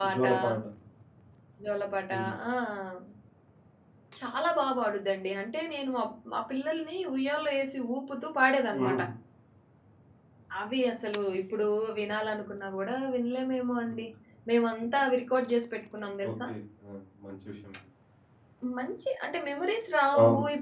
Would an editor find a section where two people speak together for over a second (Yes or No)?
No